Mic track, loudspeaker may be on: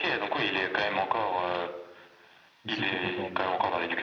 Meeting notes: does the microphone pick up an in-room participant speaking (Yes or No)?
Yes